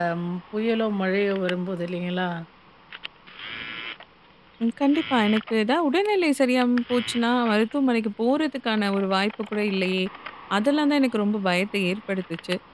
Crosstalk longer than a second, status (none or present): none